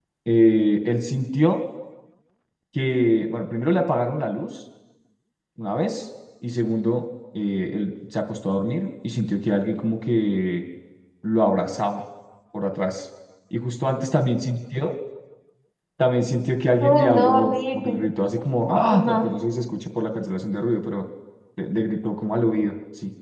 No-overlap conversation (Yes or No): No